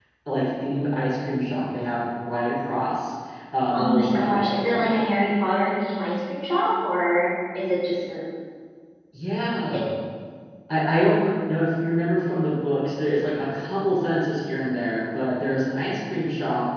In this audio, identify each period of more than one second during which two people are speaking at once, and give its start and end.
3.8-5.0

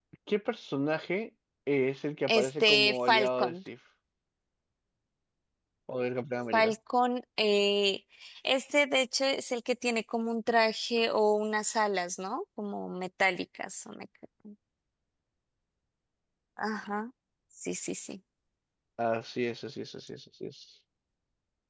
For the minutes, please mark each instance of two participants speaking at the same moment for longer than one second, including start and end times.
2.3-3.5

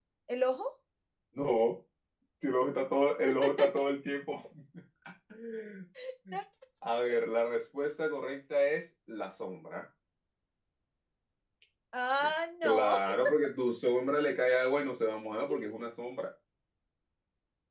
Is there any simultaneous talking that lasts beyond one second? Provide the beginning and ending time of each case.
none

